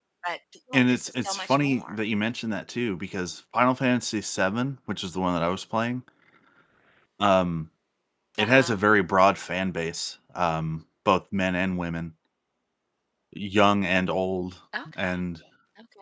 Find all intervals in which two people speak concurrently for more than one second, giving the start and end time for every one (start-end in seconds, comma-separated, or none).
0.7-2.0